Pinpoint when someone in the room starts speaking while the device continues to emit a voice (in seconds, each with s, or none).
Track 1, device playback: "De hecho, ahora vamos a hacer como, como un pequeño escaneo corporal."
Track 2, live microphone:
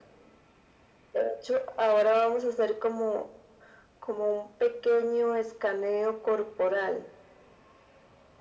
none